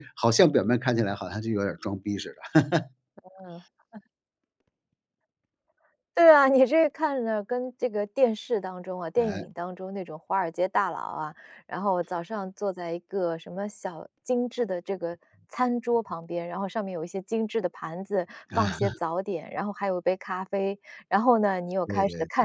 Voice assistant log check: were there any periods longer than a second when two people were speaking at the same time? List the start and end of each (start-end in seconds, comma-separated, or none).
none